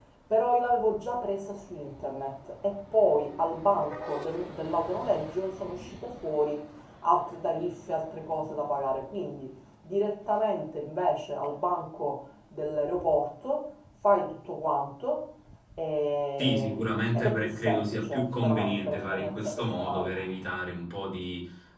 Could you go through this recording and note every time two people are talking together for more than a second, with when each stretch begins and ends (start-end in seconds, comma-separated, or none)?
16.4-20.1